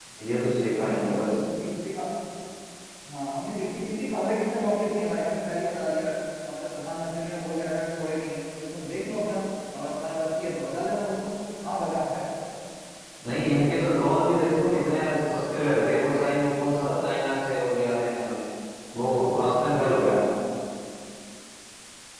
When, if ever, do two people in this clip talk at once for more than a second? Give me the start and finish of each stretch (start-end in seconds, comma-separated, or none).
none